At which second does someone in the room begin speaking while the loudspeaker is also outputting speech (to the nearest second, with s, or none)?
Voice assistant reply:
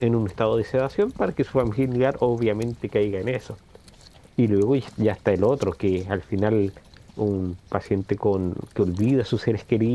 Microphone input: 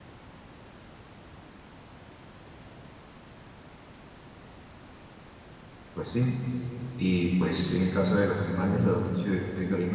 6 s